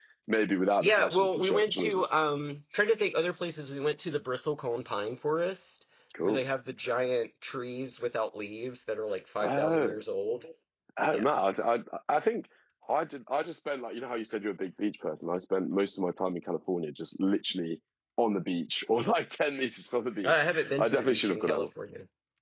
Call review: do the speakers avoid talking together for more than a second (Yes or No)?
No